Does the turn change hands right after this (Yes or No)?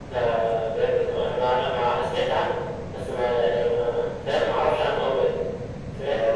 Yes